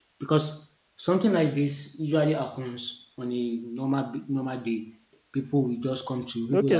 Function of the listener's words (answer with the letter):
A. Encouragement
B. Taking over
B